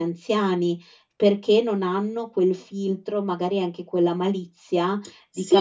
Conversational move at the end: taking over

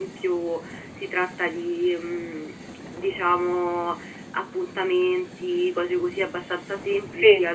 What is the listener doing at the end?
listening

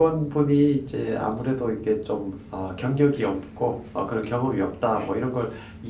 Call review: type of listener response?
listening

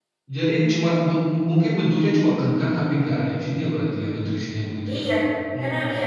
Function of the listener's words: taking over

